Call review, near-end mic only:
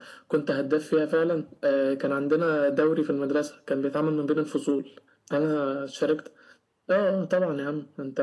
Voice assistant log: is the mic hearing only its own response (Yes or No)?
Yes